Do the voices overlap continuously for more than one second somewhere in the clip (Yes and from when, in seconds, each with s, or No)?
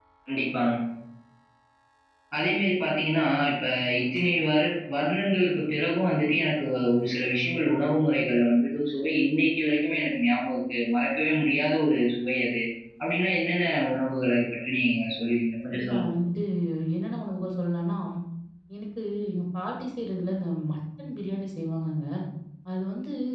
No